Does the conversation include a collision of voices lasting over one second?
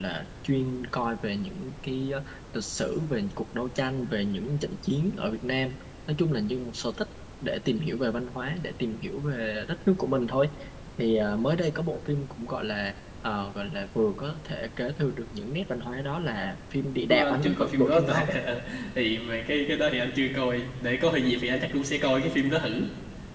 Yes, from 17.1 s

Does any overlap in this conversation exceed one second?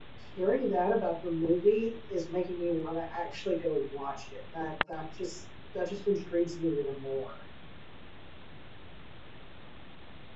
No

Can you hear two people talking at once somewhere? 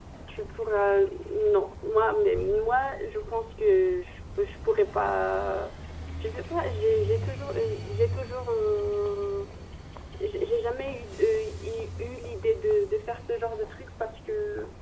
No

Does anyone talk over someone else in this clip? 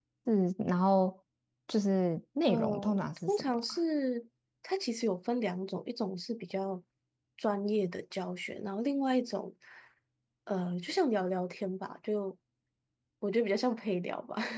Yes, from 2.5 s

